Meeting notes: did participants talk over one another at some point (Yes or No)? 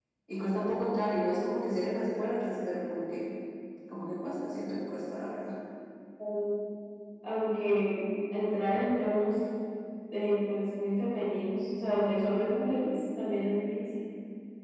No